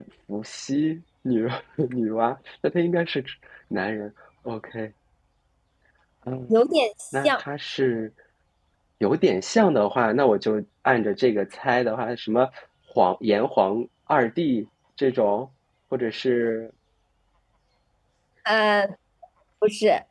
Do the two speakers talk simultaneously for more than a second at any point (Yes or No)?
No